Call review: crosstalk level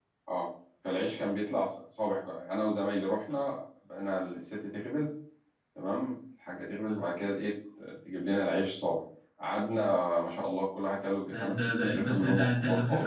present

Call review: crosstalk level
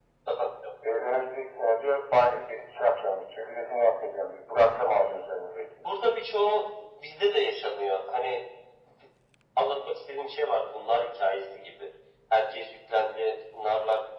none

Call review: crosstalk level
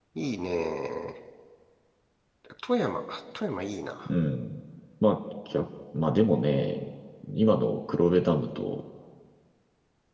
none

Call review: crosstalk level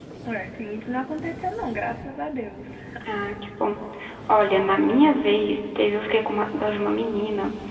none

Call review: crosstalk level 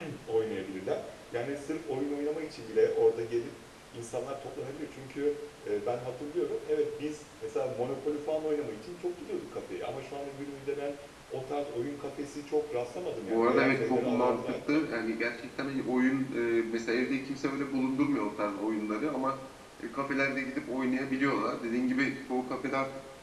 present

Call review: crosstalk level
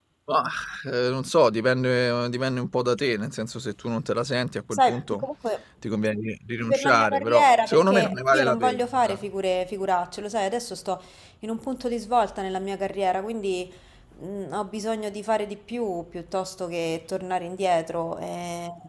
present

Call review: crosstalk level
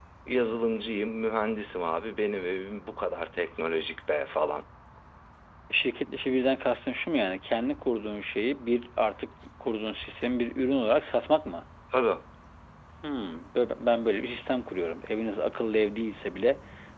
none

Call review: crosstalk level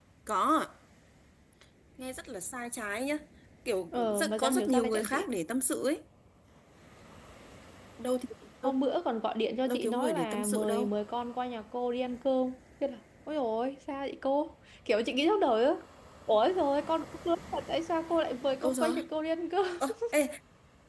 present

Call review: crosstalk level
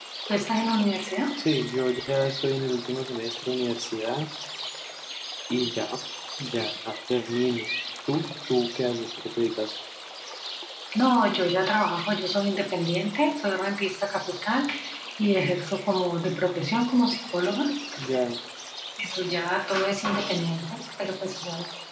none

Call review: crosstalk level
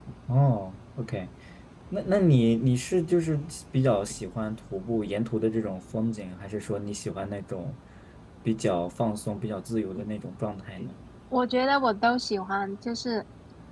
none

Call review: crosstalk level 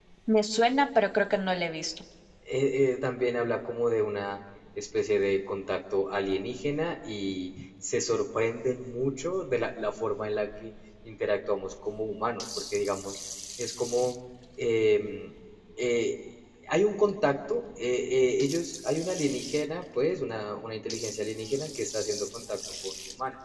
none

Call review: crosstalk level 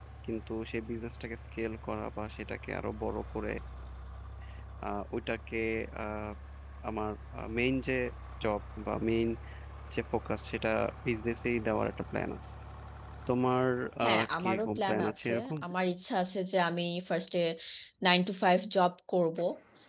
present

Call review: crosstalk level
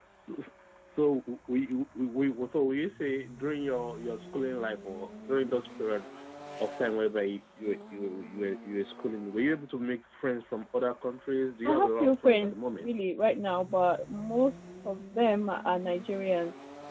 present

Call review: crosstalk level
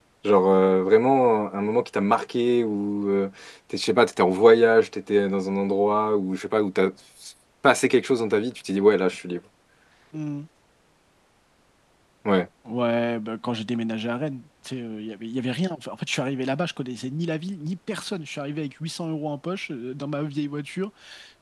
none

